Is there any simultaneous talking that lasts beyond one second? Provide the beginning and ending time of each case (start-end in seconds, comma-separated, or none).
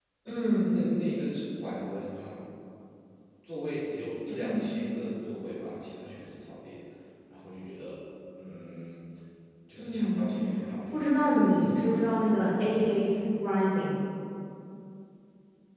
10.9-12.2